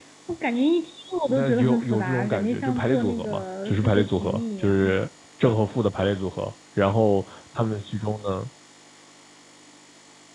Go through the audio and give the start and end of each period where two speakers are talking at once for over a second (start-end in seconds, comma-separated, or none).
1.3-5.0